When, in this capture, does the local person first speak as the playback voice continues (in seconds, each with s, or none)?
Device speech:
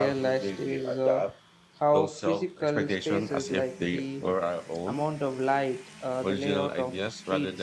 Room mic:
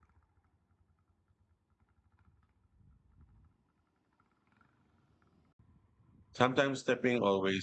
6.3 s